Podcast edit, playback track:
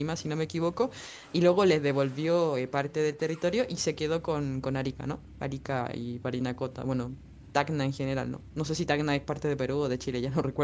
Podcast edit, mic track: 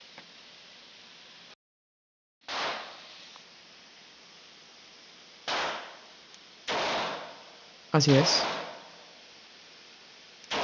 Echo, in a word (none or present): none